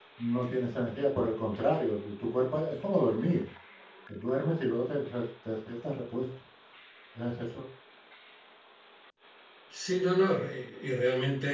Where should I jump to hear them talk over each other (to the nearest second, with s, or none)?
none